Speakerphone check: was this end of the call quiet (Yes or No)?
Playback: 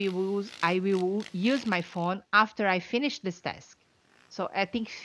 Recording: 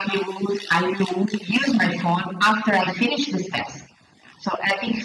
Yes